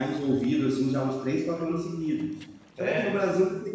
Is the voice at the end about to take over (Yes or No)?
No